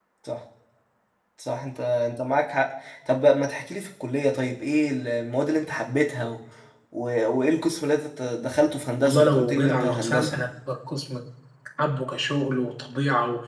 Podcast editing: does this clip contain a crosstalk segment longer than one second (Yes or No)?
Yes